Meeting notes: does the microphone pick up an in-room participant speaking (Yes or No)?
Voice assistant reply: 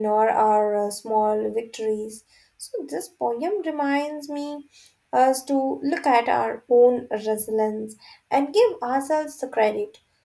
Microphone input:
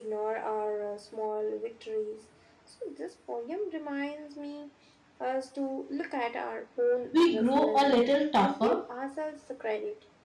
Yes